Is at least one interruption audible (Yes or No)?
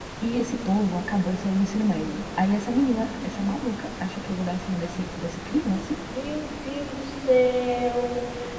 No